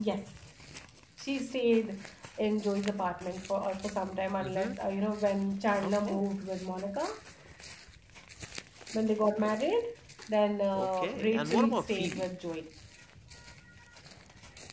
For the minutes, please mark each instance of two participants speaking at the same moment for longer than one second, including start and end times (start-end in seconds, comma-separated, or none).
10.7-12.3